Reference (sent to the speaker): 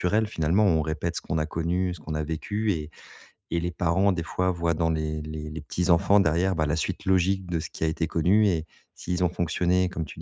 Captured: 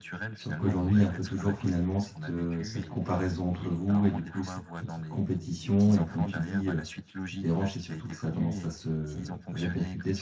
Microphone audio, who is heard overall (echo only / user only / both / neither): both